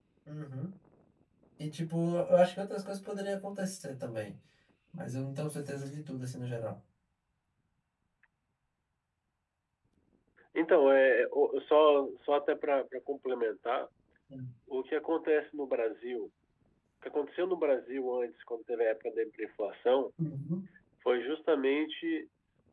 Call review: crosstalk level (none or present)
none